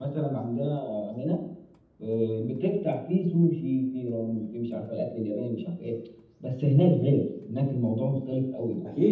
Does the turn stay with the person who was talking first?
No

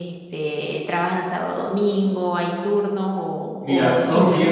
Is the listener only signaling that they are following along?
No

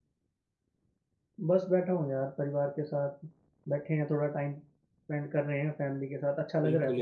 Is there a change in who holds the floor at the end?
Yes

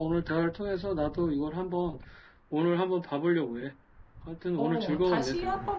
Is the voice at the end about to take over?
Yes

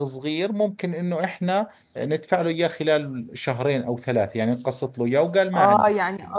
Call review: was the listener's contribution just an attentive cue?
No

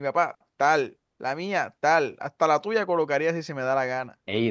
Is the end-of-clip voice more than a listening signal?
No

